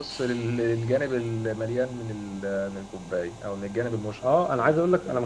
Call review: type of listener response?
taking over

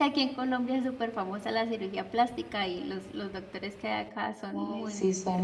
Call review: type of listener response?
taking over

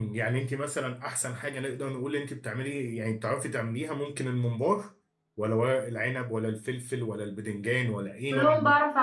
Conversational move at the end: taking over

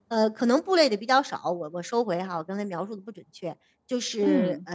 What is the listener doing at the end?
listening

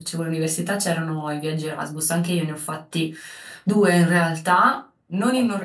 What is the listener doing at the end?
listening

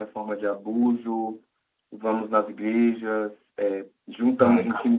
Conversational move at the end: listening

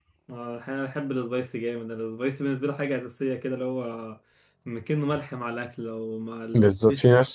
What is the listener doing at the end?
taking over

